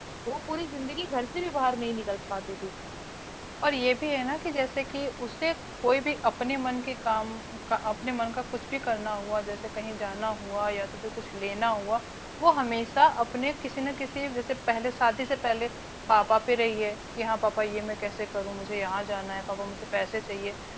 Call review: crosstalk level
none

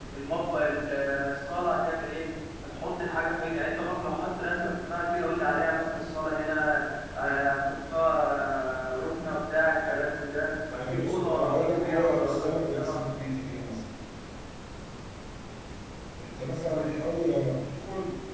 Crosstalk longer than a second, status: present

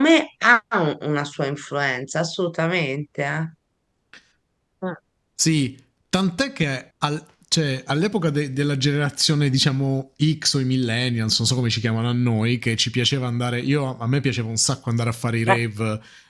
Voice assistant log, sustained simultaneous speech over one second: none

